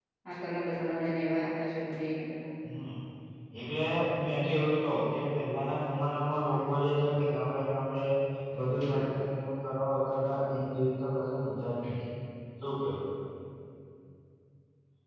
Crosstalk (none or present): none